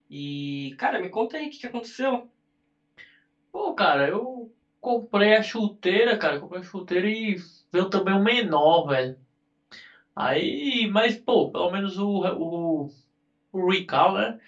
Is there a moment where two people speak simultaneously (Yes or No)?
No